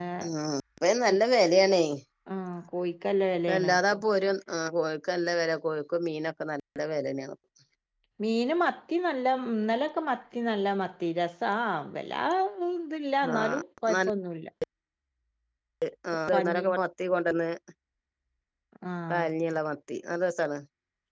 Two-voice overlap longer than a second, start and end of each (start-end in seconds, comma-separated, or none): none